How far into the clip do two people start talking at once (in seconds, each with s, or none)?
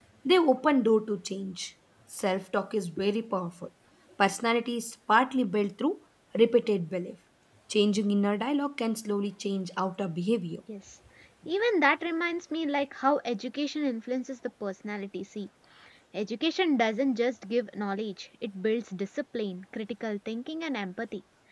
none